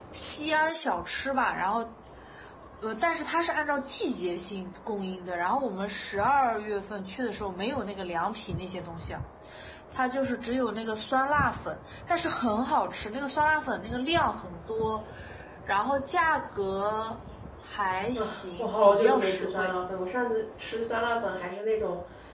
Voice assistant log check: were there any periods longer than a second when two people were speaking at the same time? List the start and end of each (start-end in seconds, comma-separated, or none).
18.1-19.8